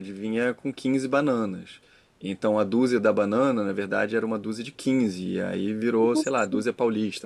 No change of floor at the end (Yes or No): Yes